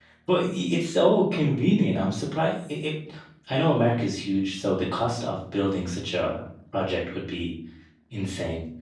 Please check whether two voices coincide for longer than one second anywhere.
No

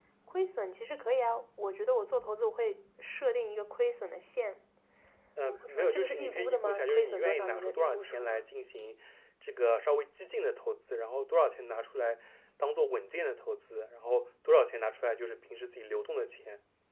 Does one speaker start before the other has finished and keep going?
Yes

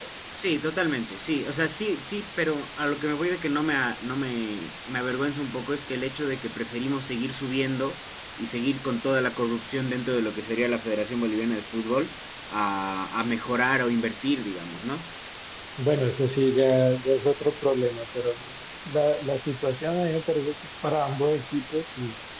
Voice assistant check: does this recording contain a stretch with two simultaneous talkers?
No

